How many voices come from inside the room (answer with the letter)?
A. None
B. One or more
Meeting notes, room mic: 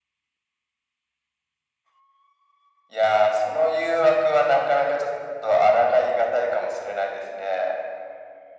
A